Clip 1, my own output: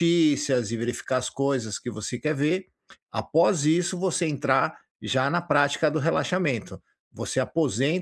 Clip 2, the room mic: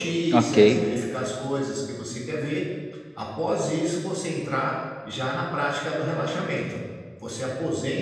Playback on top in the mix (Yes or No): No